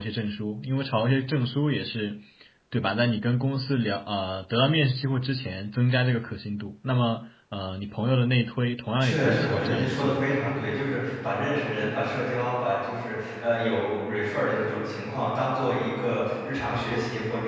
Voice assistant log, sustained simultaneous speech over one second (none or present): present